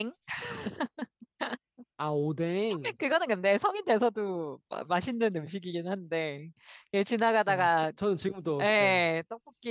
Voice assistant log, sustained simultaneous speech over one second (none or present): none